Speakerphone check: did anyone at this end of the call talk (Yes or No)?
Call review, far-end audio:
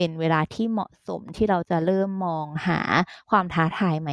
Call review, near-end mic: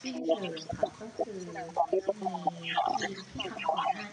Yes